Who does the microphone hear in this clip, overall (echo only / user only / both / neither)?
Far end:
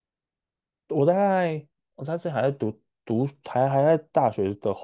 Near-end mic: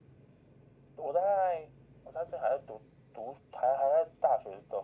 echo only